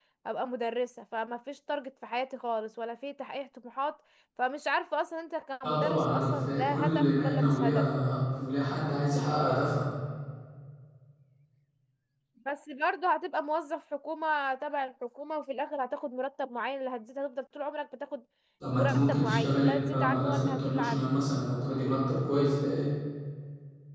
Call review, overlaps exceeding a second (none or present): present